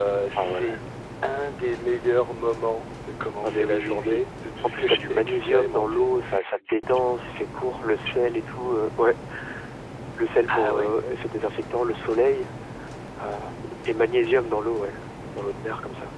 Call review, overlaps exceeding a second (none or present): present